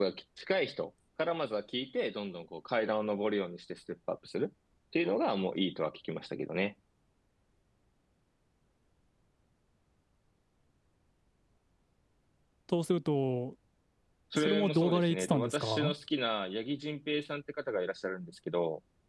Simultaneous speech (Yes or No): Yes